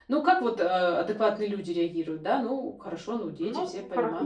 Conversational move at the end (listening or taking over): taking over